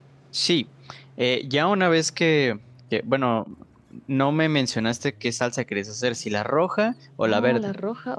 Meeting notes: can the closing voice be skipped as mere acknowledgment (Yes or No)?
No